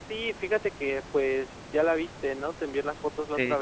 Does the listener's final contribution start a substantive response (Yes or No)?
No